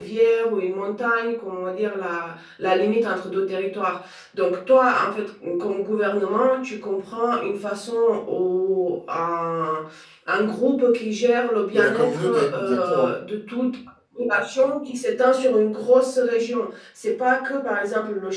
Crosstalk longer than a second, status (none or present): present